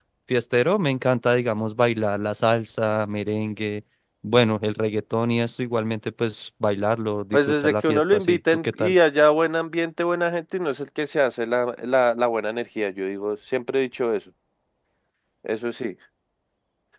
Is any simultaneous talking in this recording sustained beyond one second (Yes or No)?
Yes